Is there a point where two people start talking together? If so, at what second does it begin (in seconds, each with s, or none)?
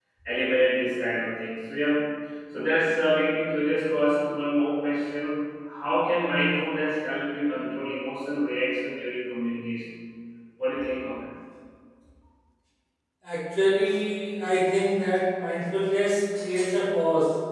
none